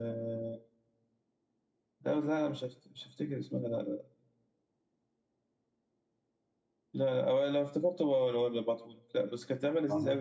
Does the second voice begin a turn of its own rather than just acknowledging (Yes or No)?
No